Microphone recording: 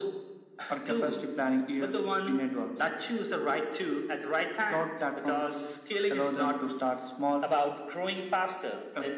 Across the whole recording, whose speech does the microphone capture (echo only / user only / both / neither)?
echo only